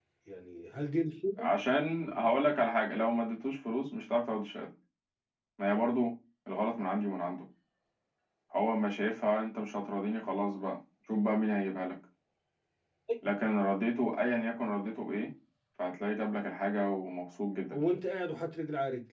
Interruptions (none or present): none